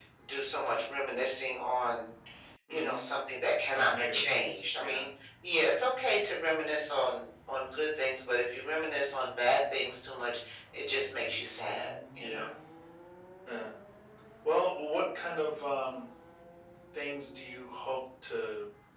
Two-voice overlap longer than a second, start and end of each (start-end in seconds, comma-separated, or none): 3.7-5.1